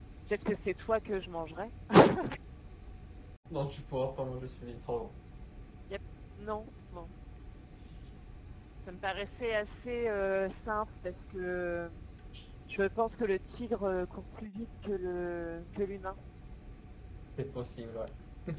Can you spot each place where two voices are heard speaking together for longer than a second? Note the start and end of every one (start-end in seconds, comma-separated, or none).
none